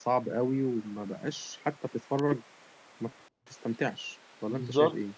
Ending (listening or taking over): taking over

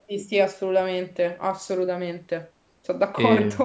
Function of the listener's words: taking over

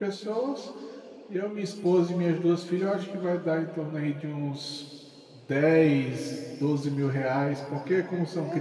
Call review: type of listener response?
taking over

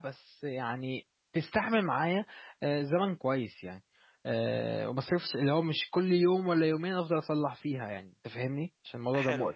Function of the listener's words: taking over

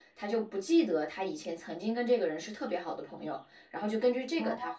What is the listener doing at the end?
listening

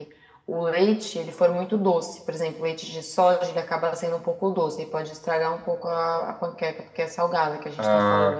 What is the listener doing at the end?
taking over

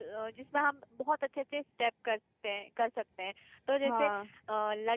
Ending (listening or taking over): listening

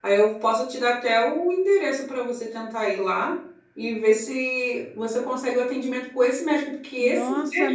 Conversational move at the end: taking over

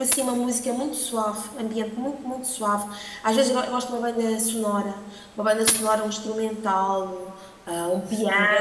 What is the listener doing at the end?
taking over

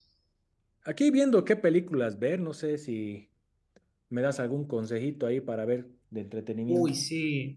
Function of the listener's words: taking over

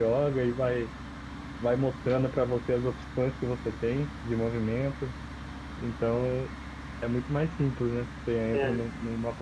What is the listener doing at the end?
listening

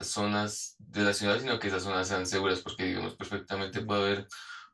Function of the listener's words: listening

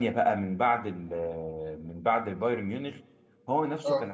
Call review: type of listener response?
listening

